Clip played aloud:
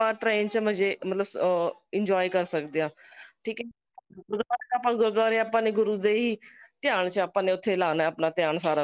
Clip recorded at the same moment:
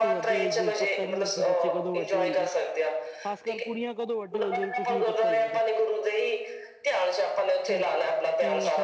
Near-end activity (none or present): present